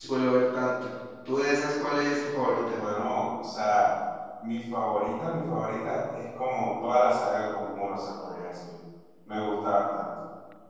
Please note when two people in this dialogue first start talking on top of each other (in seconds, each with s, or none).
none